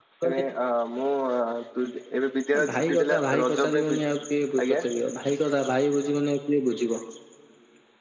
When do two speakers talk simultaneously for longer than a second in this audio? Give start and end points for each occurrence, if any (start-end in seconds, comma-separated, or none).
2.7-4.0